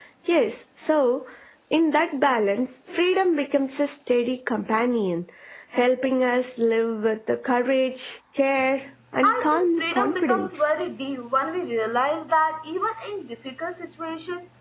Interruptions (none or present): present